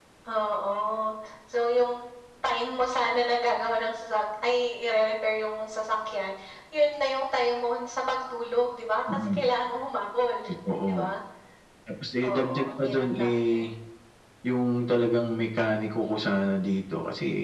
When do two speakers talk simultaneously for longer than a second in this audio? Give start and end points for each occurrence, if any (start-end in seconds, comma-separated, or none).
12.2-13.6